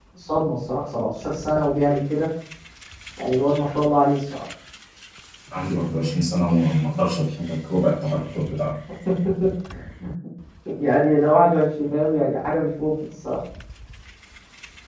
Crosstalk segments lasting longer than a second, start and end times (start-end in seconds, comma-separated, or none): none